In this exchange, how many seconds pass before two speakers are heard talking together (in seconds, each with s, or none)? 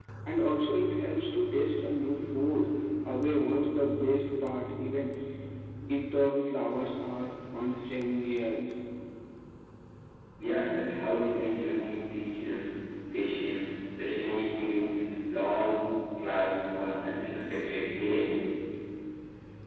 none